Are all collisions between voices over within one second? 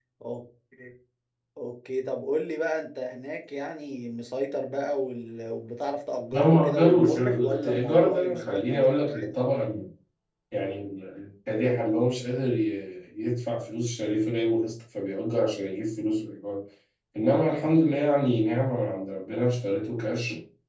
No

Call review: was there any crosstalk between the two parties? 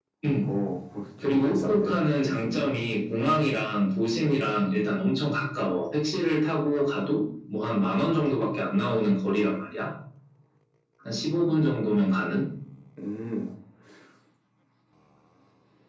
Yes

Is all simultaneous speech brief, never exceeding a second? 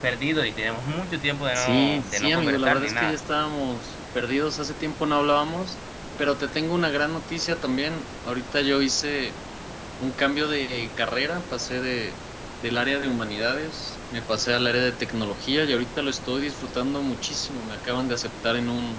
No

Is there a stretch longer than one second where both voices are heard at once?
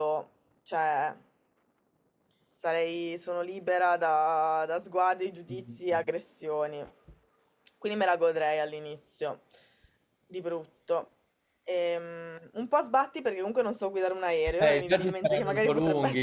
Yes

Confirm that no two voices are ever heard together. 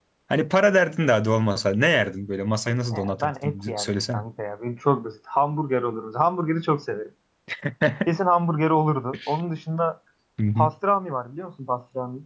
No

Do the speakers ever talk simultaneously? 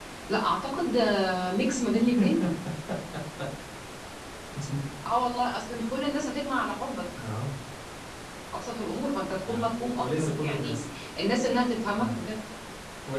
Yes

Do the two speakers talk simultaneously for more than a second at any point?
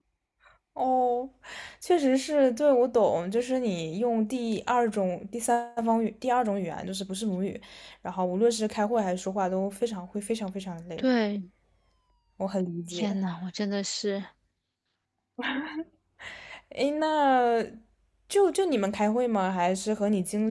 No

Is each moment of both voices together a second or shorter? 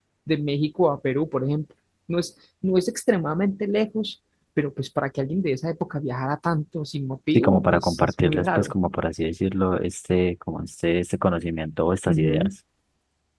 No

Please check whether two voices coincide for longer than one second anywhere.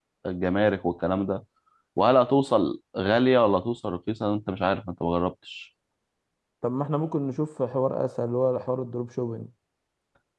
No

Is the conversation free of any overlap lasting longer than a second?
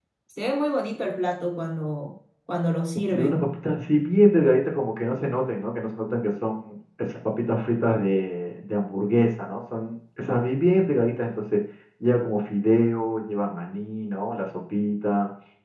Yes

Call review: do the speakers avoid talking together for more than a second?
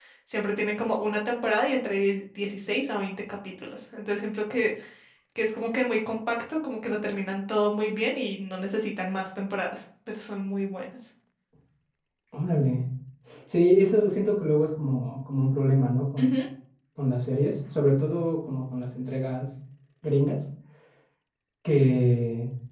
Yes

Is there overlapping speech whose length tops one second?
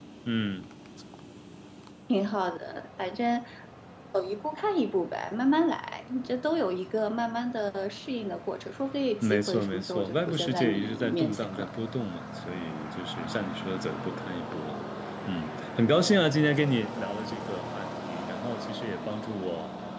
Yes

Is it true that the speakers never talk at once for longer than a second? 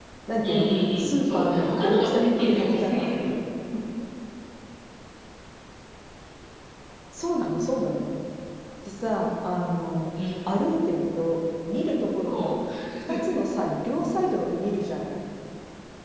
No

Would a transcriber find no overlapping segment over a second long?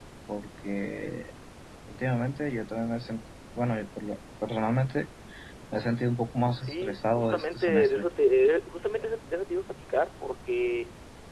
No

